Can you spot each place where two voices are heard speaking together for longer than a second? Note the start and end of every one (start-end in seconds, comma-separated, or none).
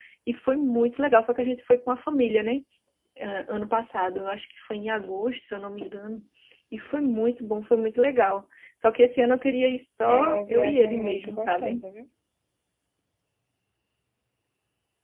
10.1-11.8